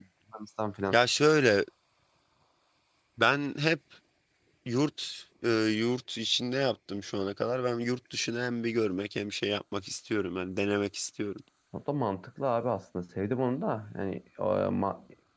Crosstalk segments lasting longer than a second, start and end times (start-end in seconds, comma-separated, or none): none